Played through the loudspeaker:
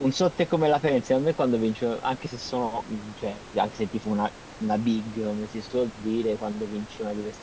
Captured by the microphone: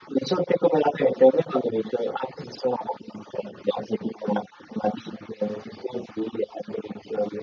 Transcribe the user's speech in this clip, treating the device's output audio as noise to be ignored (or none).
none